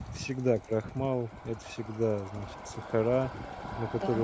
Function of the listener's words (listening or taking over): listening